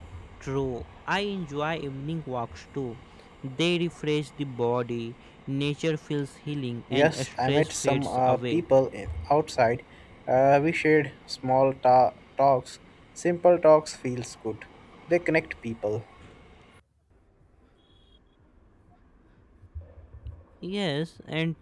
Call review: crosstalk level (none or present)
present